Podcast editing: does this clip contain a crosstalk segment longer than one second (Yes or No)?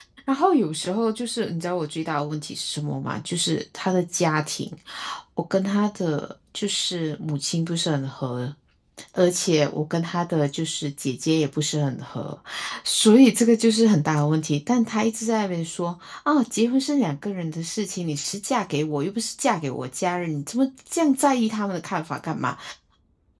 No